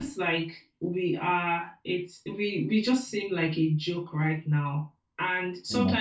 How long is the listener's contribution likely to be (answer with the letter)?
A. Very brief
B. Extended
A